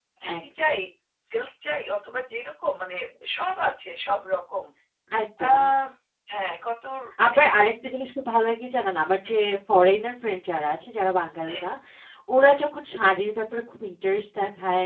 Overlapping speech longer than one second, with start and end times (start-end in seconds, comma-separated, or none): none